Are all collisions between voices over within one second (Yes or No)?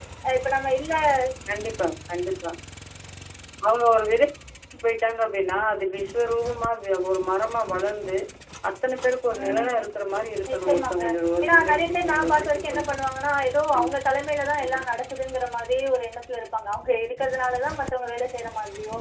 No